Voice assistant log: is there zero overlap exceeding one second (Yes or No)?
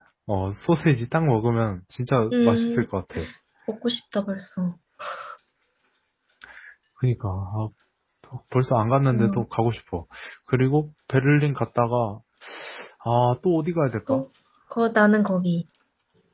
Yes